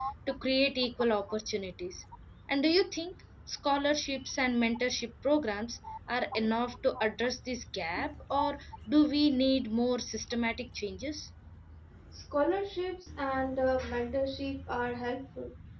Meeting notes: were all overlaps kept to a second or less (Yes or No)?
Yes